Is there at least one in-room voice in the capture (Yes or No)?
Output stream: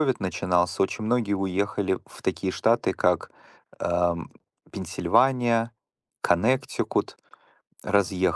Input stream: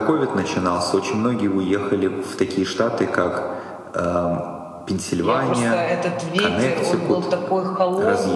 Yes